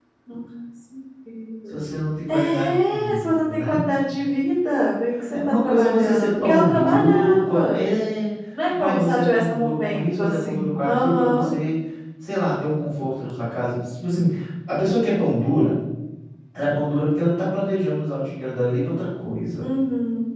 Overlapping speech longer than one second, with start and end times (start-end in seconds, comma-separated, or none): 2.3-3.9, 5.3-7.9, 8.7-11.5